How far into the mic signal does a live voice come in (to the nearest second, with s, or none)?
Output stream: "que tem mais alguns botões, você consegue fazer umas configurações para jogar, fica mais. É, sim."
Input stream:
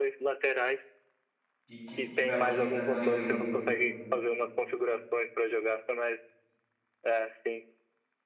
2 s